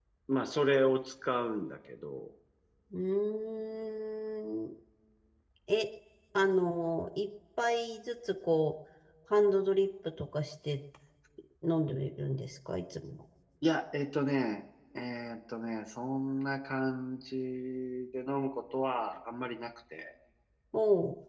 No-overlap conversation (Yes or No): Yes